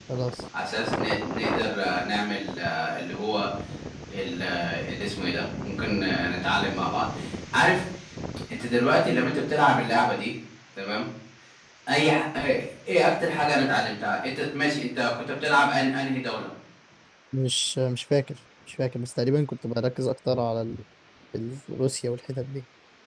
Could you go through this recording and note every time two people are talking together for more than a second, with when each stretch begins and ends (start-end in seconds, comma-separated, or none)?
none